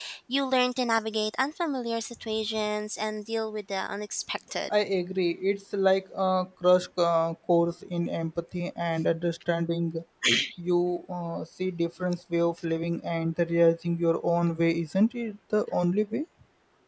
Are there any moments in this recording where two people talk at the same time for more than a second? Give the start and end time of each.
none

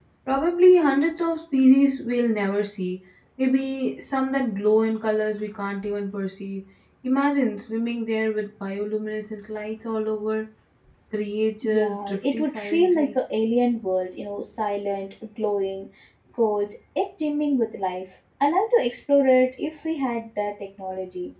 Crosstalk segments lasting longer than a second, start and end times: 11.6-13.1

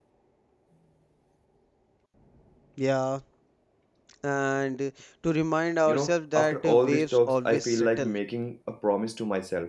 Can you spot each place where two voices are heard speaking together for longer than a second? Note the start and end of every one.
5.9-8.1

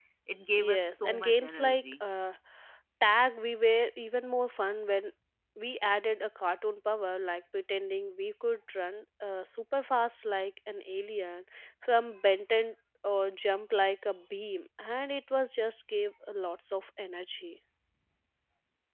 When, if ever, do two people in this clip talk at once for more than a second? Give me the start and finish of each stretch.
0.6-2.1

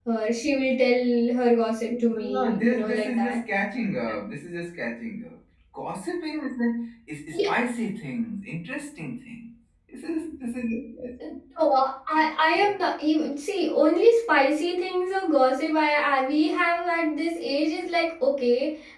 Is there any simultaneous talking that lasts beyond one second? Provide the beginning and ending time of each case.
1.9-3.4

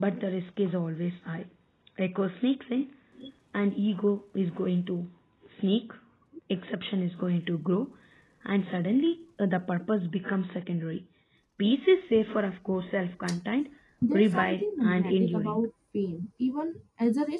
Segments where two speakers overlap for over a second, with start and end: 14.1-15.6

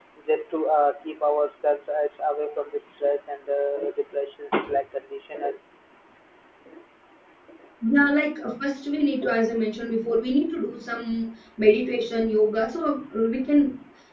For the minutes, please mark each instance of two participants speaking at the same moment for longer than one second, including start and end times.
none

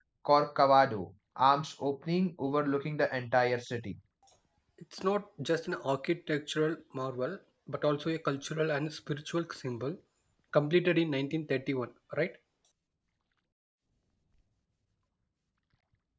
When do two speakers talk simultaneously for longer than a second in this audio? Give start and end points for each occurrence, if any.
none

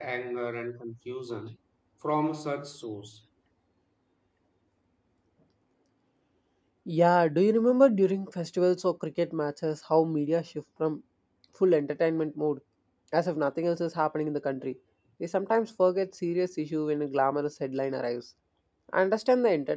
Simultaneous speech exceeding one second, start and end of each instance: none

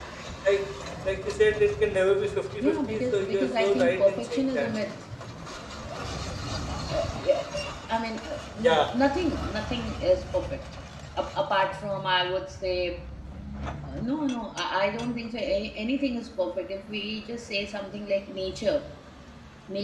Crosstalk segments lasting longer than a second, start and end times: 2.6-4.7

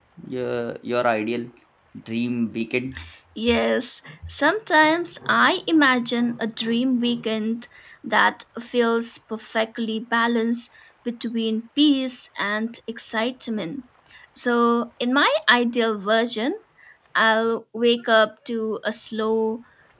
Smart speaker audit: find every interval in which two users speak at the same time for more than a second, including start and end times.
none

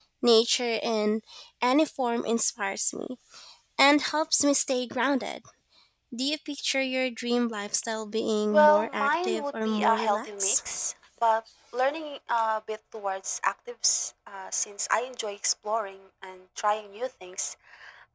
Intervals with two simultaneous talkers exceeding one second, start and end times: 8.5-10.6

